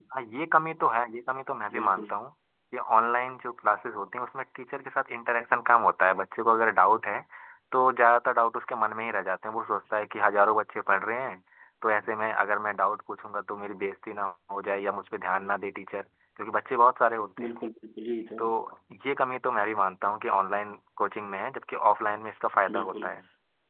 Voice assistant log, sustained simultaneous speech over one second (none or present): none